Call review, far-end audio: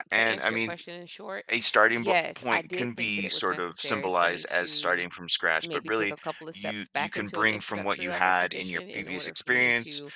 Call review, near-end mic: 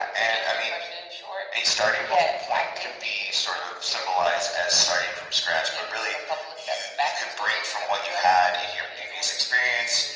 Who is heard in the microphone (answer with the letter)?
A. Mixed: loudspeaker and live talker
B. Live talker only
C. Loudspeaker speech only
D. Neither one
C